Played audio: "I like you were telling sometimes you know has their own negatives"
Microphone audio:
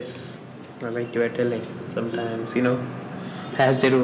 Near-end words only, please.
none

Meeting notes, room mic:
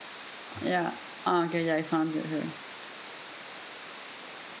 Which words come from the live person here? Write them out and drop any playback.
yeah. Ah, Okay, yeah, I found her.

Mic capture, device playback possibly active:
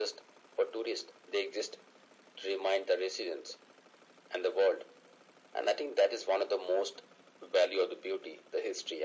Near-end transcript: none

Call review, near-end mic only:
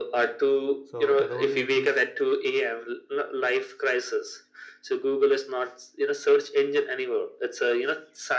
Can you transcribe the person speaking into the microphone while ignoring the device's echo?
so that only exists

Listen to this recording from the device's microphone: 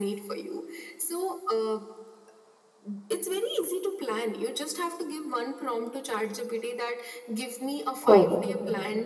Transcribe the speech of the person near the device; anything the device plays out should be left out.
Hmm, hmm,

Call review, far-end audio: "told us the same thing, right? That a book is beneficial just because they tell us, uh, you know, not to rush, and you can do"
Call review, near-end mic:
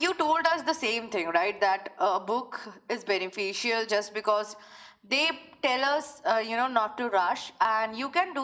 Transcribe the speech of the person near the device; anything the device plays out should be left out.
none

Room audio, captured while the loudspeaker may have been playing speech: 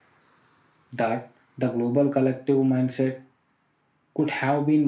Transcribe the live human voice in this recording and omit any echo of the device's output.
none

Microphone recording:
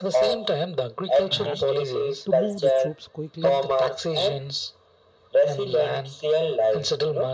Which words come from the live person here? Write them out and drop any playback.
and to move the troops quickly

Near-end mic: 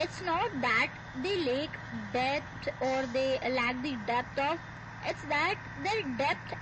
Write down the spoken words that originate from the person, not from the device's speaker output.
none

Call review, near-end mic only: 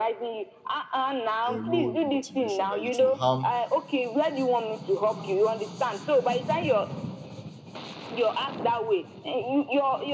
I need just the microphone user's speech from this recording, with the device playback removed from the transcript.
erode motivation, that it will harm.

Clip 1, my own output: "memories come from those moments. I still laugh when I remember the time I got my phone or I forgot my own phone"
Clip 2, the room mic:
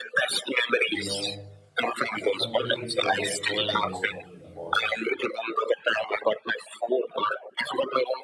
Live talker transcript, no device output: you know, I completely forget what I was thinking about.

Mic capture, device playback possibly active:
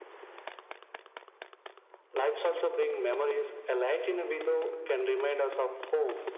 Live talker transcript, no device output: none

